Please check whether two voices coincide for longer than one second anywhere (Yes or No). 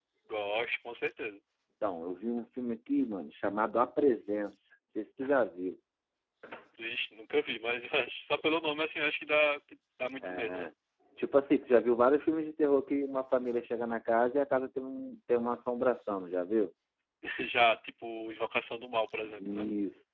No